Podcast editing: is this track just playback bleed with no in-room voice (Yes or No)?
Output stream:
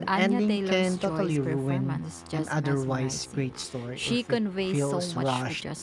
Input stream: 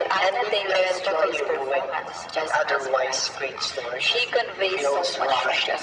Yes